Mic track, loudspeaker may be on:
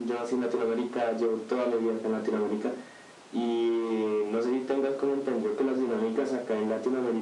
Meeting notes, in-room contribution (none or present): none